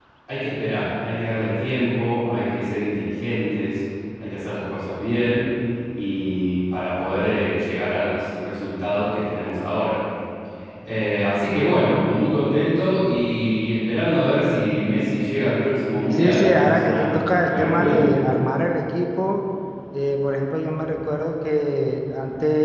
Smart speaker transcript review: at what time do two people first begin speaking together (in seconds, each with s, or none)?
16.1 s